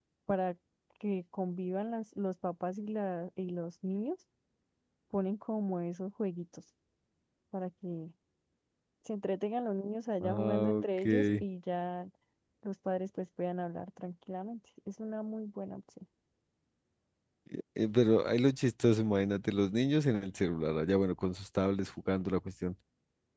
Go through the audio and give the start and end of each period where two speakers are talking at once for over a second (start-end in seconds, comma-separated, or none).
10.2-11.4